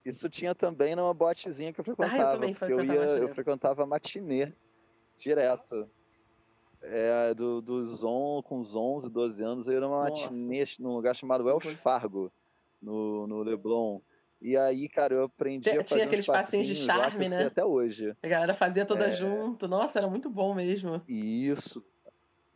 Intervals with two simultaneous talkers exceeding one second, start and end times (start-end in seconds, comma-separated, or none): 2.0-3.3, 15.7-17.5